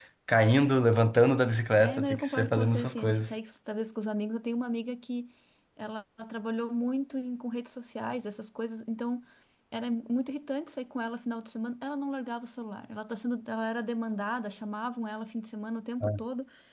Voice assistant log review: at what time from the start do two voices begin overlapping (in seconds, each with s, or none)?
1.8 s